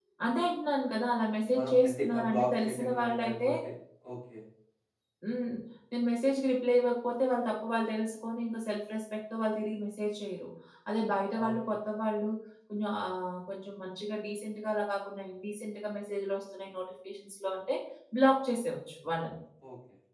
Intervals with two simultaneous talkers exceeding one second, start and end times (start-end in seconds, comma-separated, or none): 1.6-3.5